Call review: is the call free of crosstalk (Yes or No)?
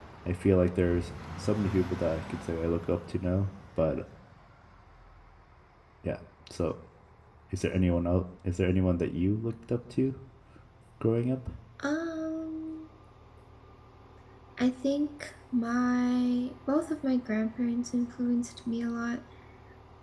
Yes